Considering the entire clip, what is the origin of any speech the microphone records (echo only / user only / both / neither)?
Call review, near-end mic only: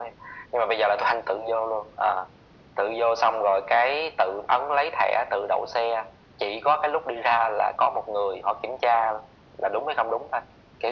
echo only